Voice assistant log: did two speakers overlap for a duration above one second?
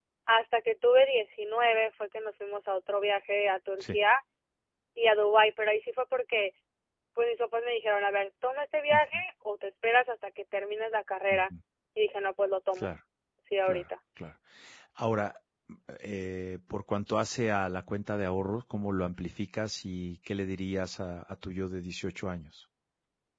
No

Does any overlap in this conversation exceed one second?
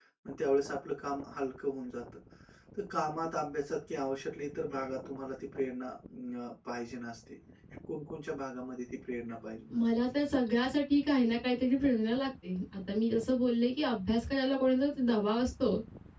No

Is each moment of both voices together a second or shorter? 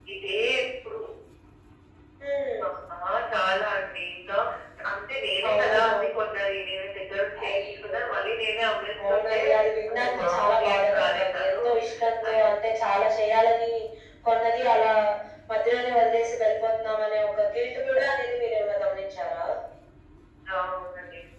No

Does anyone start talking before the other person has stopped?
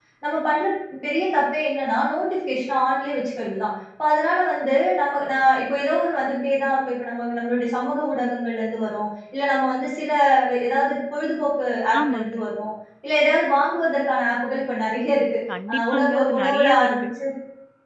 Yes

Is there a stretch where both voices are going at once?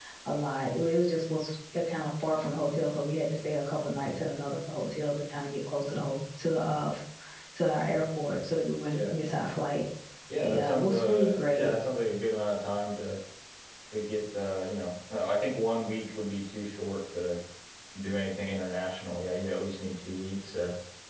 Yes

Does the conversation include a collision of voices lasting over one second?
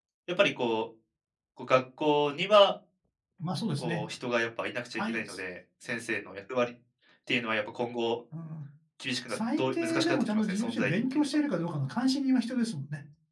Yes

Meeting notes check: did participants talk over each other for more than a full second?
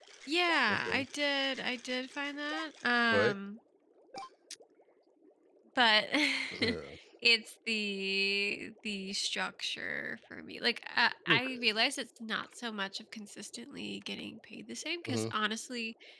No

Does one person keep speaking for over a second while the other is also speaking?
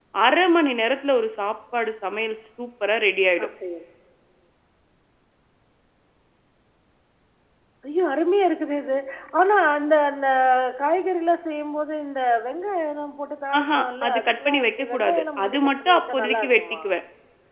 Yes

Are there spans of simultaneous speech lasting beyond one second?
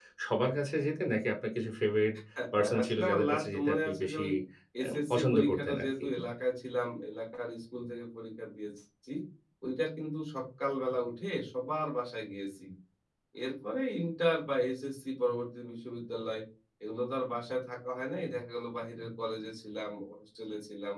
Yes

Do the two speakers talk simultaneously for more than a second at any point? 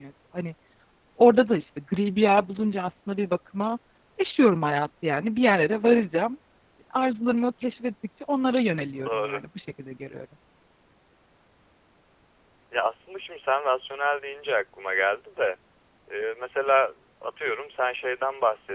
No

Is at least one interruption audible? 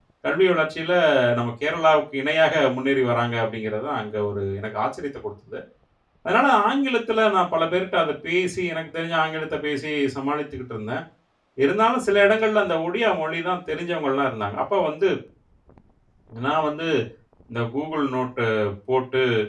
No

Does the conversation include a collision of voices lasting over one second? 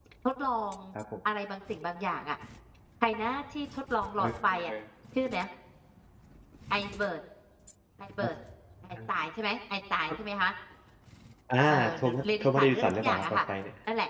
Yes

